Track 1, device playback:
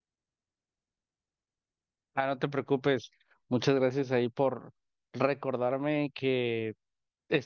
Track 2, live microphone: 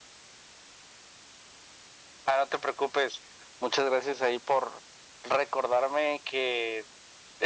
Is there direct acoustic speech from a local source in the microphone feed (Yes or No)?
No